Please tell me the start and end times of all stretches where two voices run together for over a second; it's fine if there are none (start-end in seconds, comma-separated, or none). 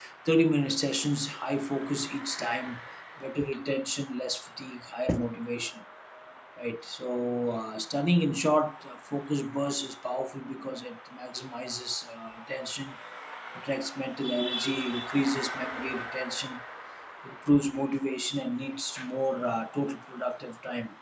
none